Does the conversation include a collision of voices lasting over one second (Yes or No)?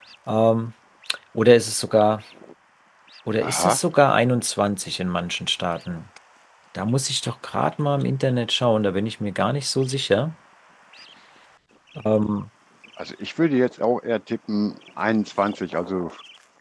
No